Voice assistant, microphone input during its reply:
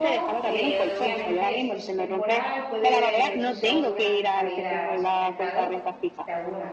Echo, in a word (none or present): present